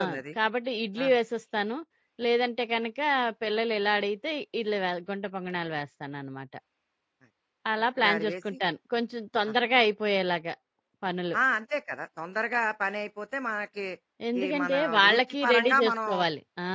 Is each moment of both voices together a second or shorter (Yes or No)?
No